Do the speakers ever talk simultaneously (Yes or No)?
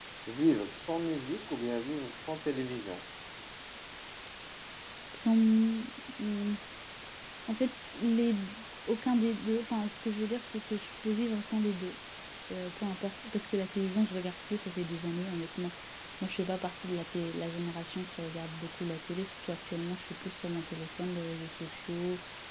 No